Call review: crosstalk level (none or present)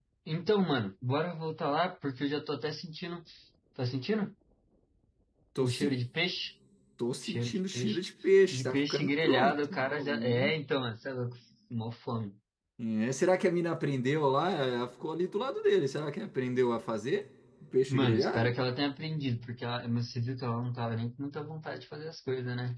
present